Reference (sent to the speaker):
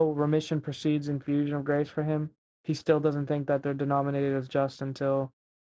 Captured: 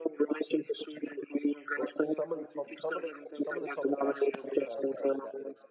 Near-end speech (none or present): present